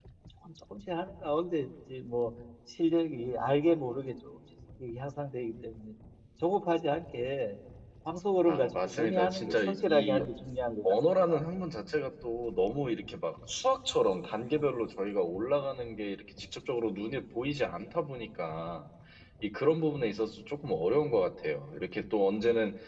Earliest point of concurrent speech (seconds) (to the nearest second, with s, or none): 8 s